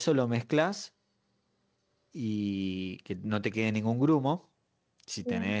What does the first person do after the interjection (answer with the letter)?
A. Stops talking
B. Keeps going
B